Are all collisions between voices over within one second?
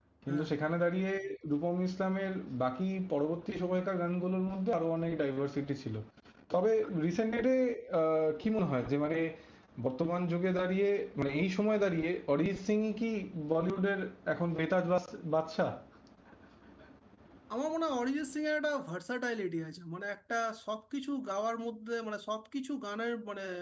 Yes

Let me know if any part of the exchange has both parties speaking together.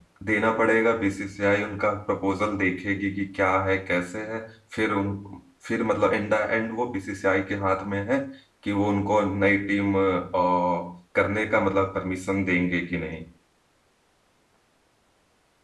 No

